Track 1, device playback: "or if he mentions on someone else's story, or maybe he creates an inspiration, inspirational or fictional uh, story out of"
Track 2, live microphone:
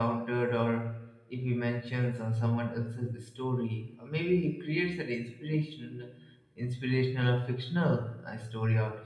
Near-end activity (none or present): none